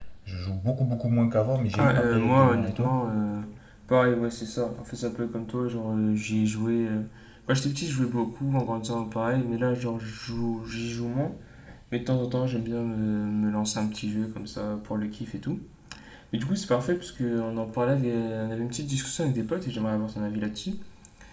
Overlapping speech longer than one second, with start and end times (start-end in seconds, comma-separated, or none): 1.7-3.0